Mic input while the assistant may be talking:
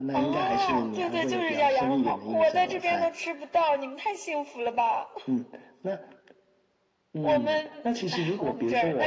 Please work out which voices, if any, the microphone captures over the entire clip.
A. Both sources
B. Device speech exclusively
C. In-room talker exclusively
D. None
B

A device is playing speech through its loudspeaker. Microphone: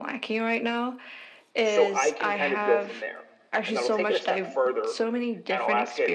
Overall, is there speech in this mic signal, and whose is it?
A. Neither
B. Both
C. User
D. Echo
B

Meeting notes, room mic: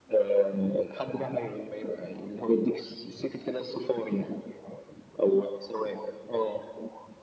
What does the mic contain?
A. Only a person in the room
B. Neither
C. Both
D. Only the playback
D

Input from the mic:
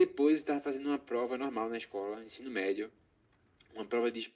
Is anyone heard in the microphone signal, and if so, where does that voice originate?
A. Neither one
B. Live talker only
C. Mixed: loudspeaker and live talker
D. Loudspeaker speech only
D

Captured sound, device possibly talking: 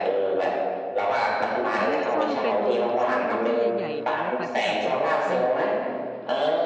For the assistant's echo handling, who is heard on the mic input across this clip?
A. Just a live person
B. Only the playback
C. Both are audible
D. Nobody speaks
C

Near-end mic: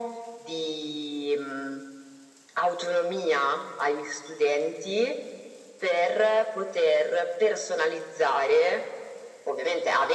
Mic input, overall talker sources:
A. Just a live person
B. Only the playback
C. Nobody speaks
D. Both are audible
B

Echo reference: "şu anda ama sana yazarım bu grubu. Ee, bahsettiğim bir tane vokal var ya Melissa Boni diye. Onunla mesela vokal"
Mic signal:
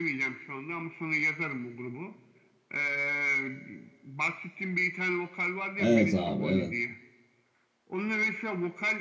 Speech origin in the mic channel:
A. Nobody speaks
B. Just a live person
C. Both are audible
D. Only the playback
C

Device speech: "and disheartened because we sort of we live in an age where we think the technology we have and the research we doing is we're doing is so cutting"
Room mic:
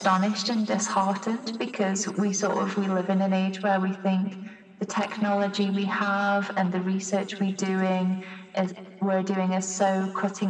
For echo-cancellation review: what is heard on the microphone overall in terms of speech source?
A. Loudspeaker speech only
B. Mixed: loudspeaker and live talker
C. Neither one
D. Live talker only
A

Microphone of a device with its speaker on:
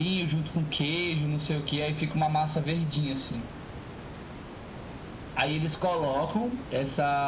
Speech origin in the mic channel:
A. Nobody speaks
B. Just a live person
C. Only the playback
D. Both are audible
C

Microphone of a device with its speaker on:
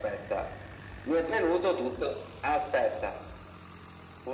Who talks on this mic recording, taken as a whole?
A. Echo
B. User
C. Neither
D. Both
A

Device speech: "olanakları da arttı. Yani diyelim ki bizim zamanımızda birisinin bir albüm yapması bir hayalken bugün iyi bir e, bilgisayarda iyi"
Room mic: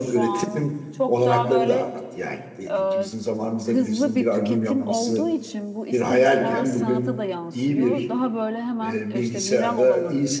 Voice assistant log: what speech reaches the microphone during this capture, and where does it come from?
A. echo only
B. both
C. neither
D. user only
B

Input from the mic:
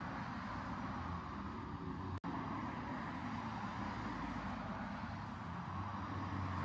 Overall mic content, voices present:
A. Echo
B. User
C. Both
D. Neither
D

